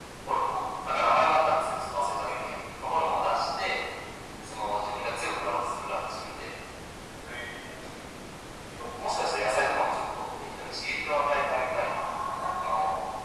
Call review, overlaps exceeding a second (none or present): none